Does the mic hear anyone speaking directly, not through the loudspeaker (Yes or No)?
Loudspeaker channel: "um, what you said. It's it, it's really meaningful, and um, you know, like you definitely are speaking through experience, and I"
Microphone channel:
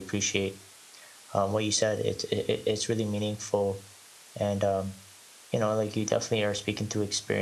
No